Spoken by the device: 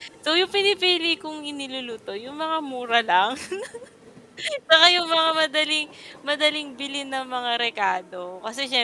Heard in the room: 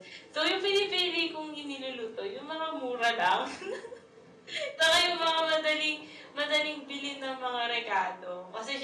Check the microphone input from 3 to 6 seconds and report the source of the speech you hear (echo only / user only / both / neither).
echo only